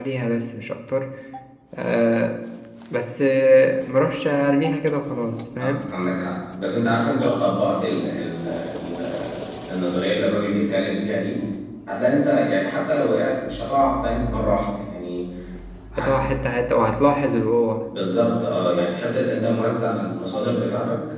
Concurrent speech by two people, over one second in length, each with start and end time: none

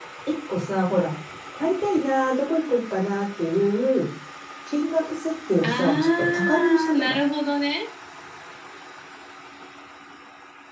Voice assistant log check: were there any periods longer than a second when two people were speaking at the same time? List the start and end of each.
5.6-7.2

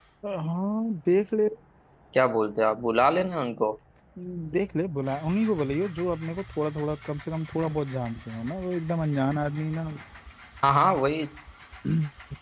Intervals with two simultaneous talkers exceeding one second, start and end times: none

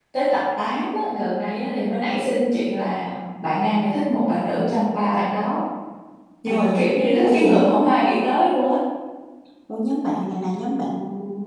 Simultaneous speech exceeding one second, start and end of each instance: none

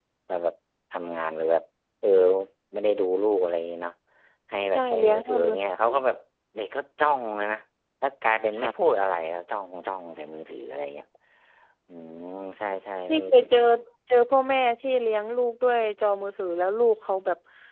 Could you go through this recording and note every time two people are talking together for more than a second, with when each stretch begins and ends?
4.7-6.0

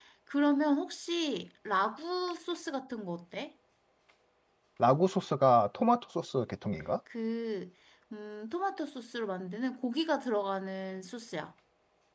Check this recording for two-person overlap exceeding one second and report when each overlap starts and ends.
none

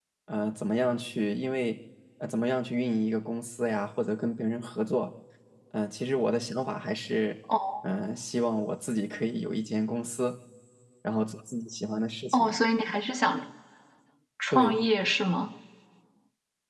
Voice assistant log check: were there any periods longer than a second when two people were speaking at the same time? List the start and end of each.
none

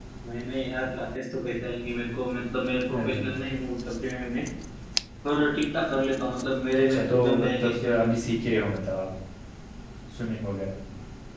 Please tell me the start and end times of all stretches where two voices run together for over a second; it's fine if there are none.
6.9-8.1

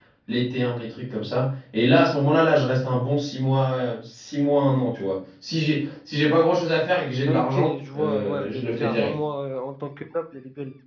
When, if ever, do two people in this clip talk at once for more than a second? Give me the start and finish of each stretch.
7.2-9.1

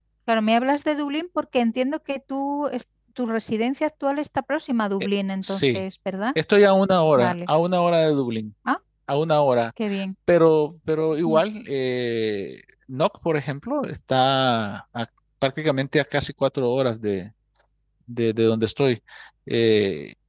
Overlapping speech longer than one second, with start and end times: none

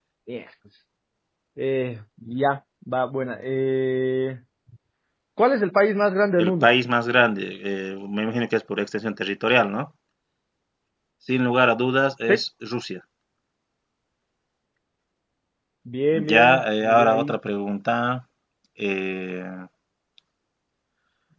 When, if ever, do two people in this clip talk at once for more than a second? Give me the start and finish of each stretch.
16.1-17.4

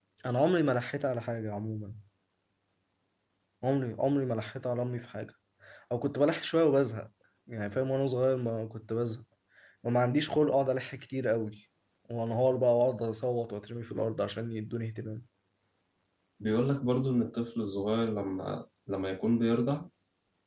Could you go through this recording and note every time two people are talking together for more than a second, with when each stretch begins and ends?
none

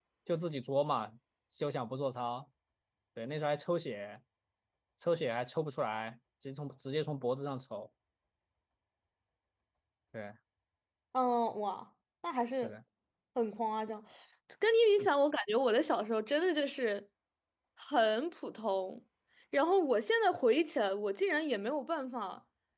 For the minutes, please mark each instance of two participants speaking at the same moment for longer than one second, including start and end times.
none

